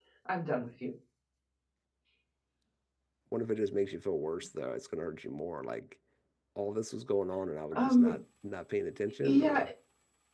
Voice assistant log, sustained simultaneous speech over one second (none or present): none